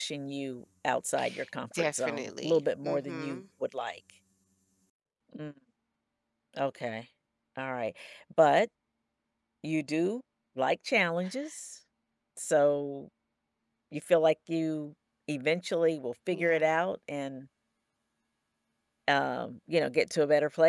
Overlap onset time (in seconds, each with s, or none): 1.7 s